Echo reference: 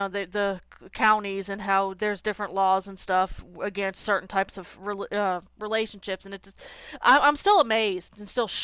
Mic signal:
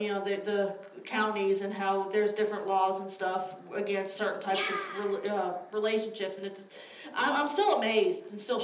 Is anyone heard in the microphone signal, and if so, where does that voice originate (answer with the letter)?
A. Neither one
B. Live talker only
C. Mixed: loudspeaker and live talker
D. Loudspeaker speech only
C